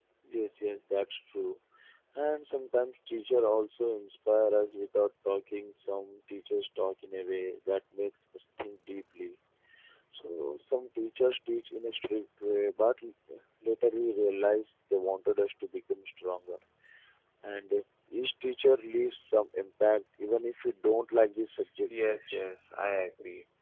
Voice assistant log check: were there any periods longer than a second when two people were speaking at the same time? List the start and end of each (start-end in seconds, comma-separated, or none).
none